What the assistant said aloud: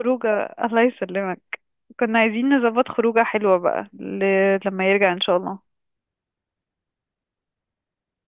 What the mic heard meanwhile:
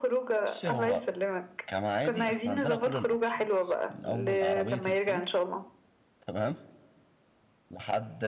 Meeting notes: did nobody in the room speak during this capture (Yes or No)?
No